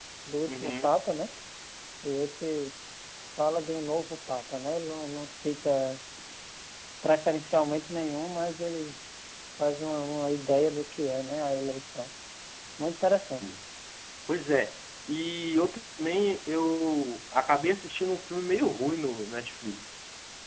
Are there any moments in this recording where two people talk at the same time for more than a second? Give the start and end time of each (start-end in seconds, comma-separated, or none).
none